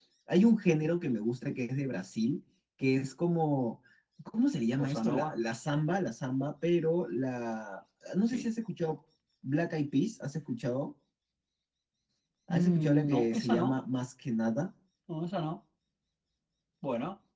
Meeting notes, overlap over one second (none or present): present